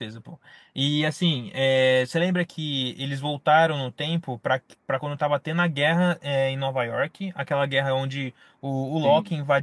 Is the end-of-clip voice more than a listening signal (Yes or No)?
No